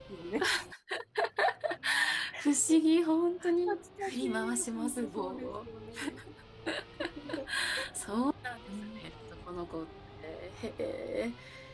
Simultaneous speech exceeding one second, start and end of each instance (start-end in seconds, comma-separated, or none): 3.7-5.6